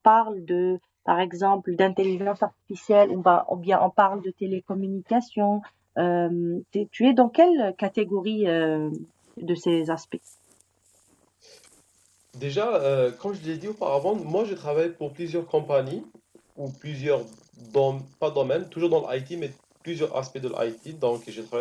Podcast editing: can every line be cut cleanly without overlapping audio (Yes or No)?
Yes